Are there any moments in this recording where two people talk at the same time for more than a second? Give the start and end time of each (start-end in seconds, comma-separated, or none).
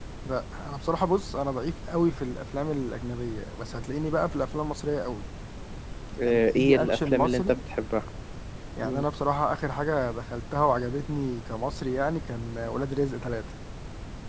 6.2-7.6